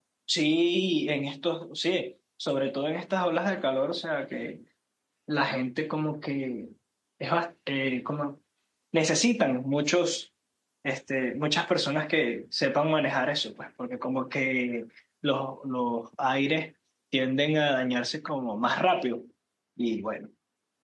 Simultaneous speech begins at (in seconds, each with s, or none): none